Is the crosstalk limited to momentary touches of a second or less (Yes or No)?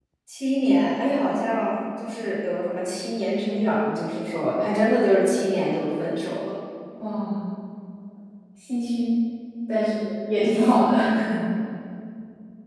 Yes